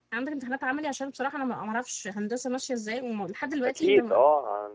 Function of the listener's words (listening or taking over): taking over